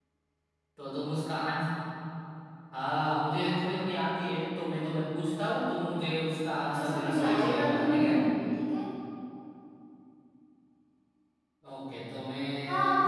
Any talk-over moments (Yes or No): Yes